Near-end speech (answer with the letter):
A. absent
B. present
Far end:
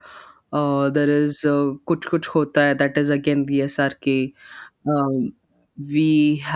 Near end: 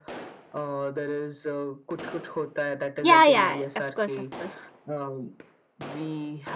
B